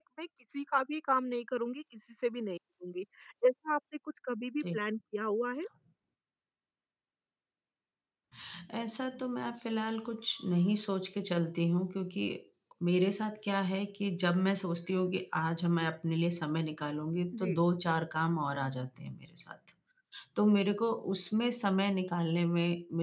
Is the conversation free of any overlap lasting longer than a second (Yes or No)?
Yes